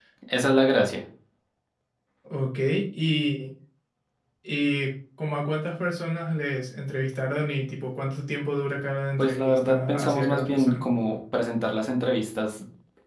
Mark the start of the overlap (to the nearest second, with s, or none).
9 s